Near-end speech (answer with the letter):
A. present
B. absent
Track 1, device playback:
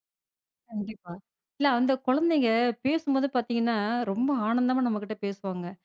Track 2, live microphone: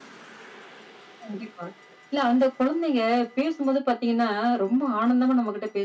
B